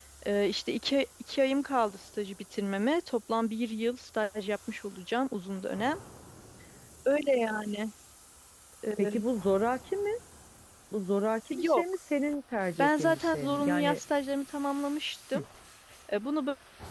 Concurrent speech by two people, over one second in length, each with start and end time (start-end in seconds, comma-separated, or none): 12.8-14.0